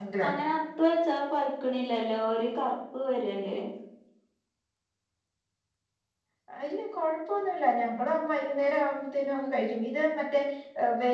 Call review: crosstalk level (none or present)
none